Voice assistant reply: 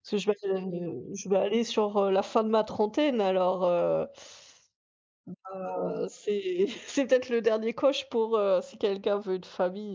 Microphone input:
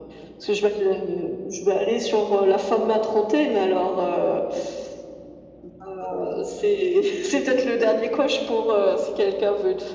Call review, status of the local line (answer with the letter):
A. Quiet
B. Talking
A